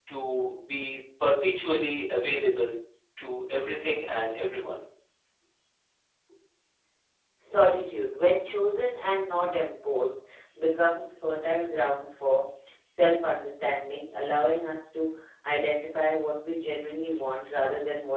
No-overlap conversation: Yes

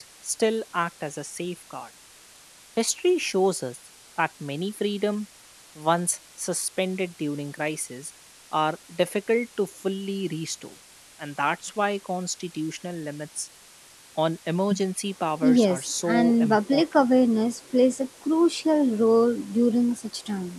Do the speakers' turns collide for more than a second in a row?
Yes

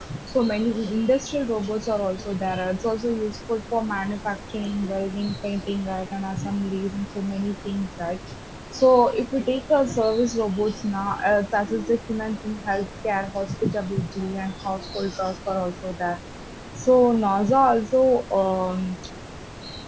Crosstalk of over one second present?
No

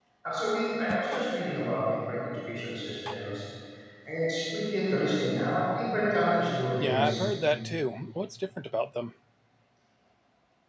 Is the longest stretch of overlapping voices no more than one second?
Yes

